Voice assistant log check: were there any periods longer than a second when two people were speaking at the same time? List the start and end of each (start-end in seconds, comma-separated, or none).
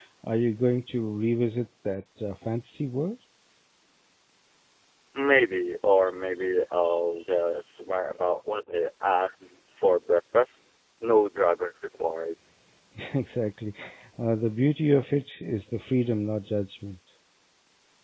none